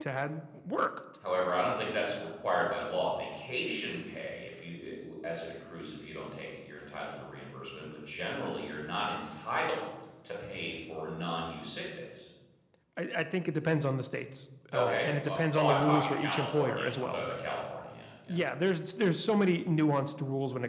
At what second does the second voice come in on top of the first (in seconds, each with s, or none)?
14.7 s